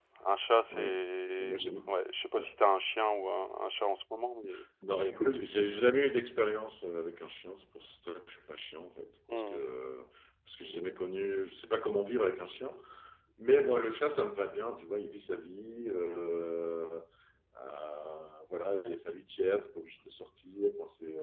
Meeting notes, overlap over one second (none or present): none